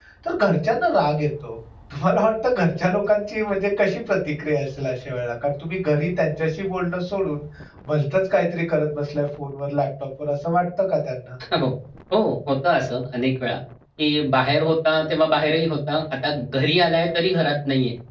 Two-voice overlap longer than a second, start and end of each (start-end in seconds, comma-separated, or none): none